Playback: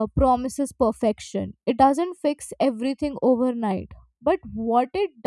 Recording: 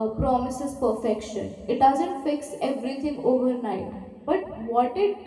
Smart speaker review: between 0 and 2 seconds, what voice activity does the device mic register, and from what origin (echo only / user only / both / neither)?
echo only